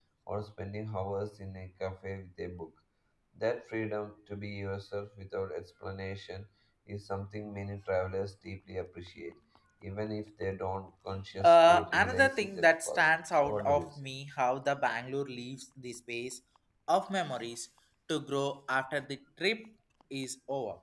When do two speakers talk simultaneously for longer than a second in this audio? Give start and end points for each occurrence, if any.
11.4-13.9

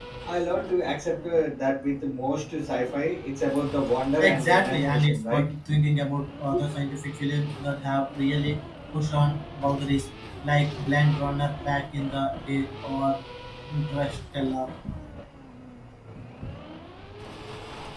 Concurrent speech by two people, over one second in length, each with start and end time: 4.2-5.4

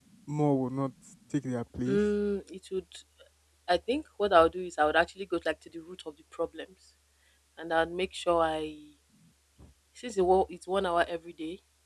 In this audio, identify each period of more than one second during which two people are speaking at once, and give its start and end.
none

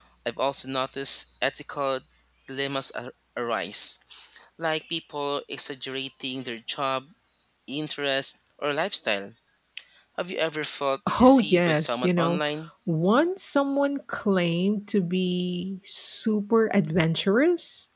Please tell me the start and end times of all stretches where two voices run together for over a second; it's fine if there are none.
11.2-12.4

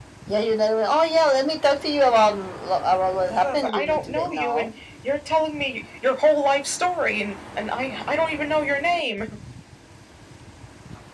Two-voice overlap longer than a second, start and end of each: 3.3-4.7

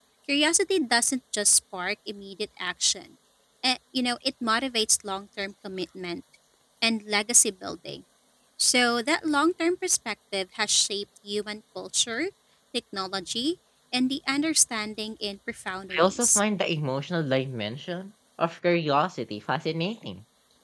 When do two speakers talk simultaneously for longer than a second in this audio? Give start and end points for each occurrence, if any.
none

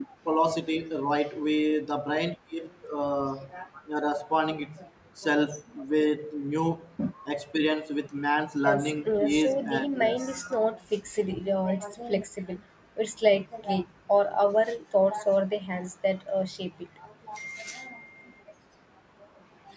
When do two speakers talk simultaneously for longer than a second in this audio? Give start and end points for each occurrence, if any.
8.7-10.5

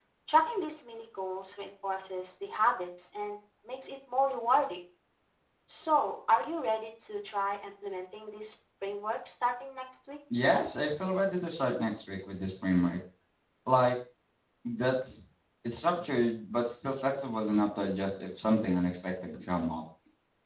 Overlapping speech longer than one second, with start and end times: none

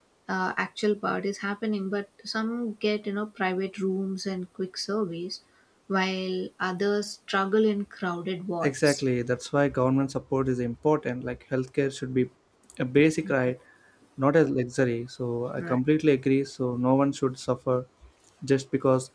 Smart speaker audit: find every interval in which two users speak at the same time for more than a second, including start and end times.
none

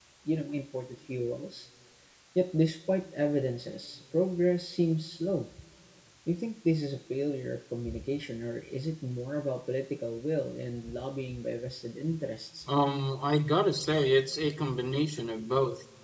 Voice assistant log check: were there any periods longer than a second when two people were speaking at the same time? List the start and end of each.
none

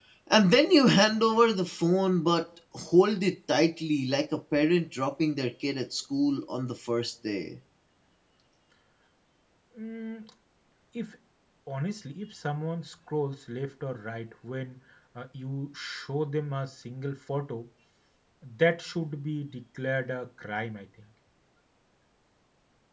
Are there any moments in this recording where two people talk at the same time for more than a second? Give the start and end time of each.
none

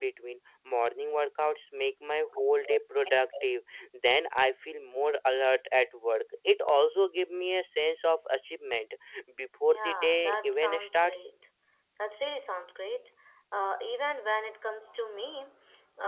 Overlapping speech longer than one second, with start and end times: 9.6-11.2

